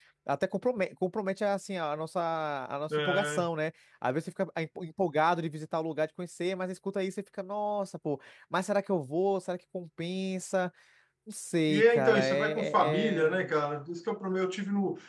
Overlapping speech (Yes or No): Yes